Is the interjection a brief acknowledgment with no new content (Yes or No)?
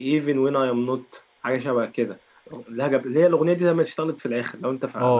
No